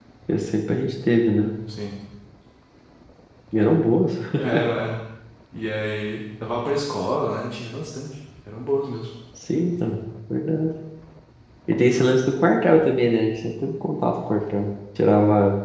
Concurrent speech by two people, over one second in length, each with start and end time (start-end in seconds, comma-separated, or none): none